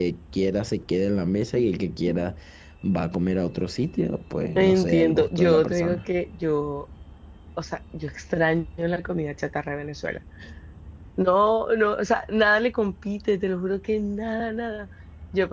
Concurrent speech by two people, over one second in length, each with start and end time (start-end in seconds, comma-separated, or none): 4.6-6.0